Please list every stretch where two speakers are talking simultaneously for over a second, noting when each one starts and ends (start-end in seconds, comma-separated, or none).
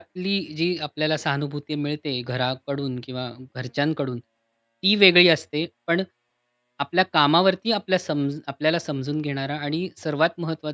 none